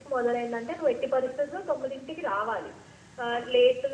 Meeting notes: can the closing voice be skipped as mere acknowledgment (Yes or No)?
Yes